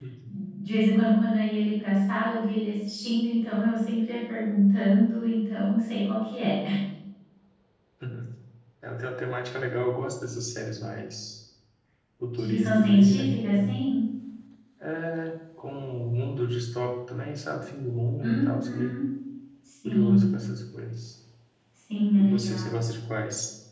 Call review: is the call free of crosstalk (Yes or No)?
No